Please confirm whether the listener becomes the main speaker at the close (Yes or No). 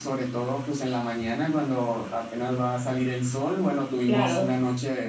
No